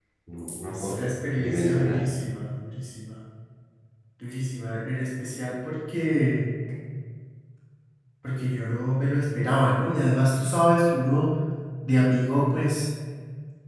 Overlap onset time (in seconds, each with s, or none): 0.7 s